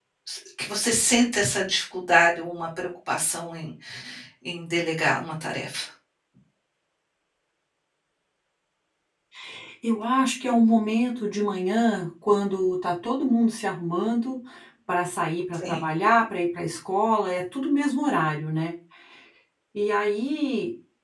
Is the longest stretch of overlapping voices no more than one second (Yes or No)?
Yes